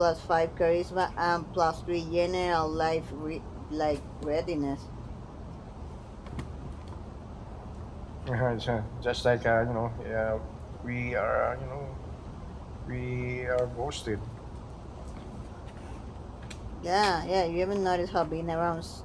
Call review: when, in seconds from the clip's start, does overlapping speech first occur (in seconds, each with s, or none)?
none